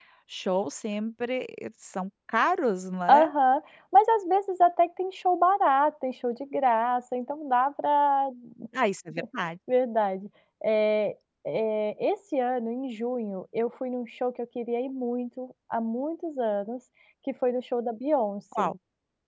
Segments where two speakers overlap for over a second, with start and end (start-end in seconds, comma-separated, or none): none